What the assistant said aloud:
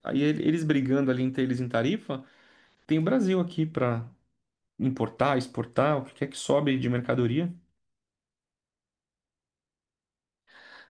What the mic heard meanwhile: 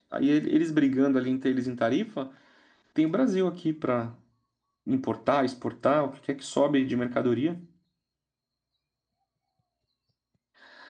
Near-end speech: none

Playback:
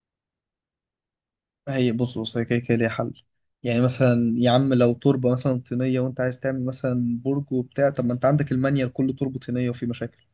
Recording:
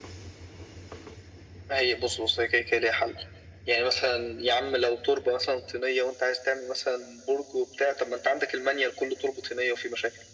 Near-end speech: none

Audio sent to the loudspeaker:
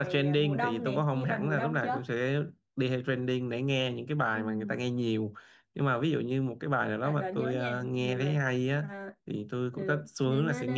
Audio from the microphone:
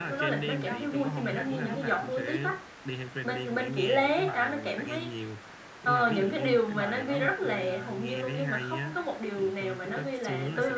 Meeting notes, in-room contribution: present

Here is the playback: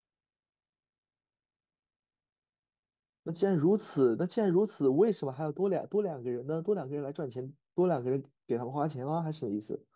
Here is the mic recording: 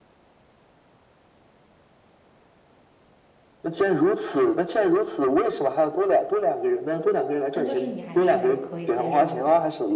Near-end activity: present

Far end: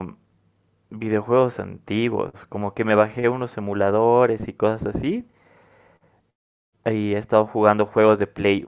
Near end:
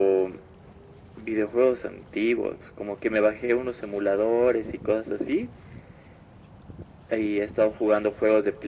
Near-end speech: none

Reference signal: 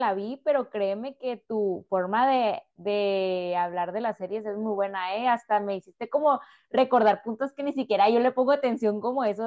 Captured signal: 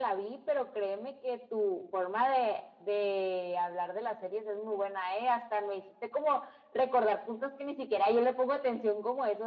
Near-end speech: none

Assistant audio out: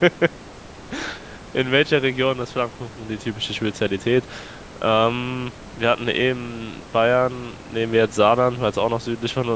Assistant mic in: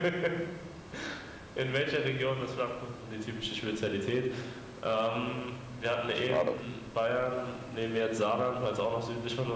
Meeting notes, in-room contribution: present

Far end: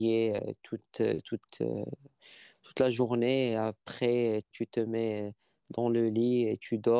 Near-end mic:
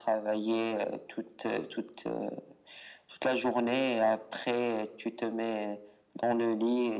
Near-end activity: none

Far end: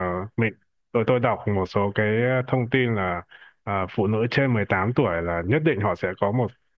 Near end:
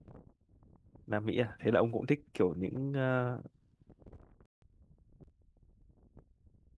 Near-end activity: present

